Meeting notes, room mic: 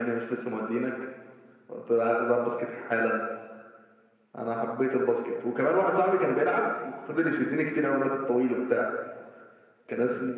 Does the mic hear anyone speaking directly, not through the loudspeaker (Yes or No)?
No